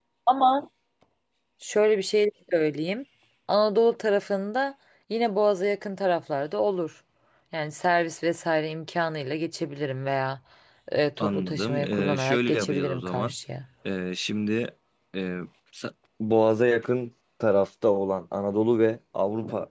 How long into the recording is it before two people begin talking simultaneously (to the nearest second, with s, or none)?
11 s